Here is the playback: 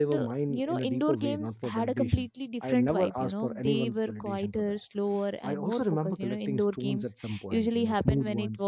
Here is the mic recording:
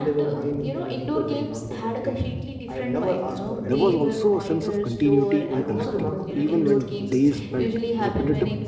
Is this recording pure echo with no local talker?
No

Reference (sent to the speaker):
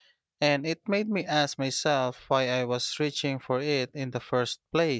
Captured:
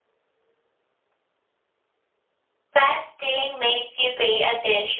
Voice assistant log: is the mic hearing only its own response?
No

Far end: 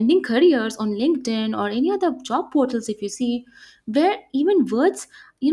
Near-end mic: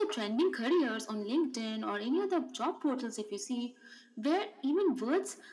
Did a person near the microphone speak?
No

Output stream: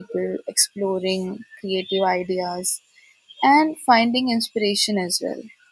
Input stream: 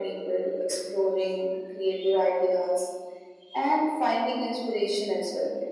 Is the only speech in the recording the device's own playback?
Yes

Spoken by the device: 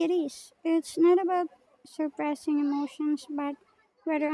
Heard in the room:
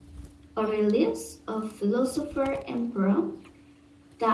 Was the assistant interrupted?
Yes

